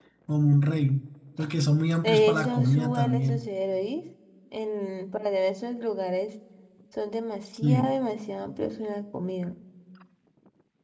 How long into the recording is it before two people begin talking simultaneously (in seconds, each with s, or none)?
2.0 s